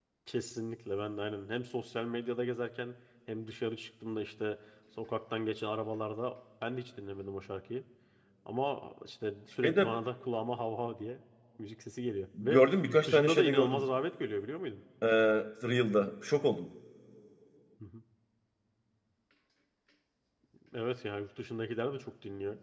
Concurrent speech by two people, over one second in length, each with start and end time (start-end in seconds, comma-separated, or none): 12.4-13.8